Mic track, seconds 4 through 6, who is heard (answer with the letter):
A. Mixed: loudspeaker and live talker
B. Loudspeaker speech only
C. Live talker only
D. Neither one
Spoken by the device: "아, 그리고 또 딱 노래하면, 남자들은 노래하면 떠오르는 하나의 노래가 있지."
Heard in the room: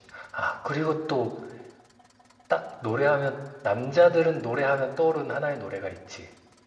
B